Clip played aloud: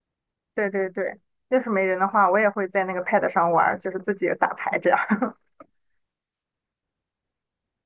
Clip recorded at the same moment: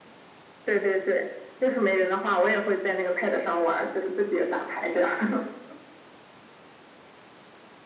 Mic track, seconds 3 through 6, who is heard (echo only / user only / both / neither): echo only